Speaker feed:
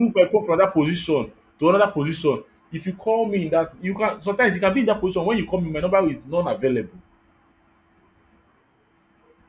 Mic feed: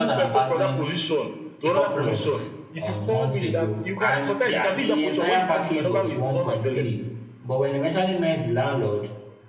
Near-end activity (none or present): present